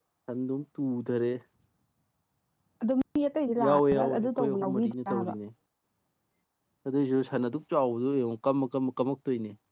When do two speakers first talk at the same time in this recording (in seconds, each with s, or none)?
3.6 s